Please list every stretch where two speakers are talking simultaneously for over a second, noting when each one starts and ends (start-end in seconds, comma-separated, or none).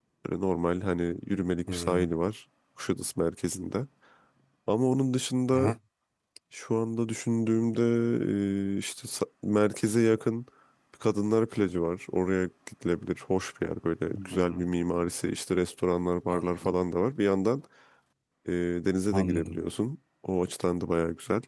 none